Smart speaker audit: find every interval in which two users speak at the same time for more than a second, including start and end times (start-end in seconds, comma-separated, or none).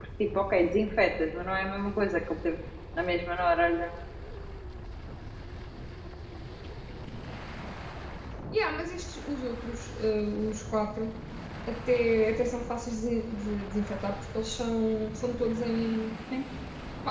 none